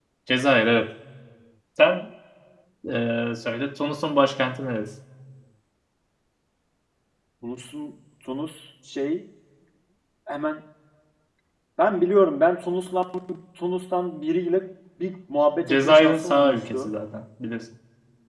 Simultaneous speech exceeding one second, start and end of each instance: 15.7-16.9

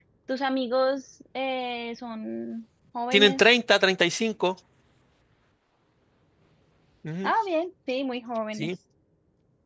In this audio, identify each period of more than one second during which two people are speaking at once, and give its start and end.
none

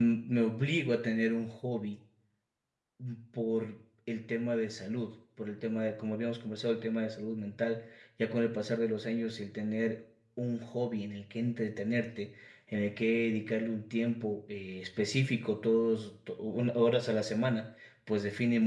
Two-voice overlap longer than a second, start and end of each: none

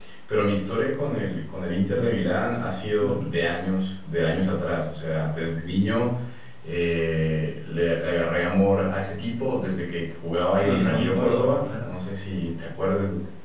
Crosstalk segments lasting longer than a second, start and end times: 10.5-11.9

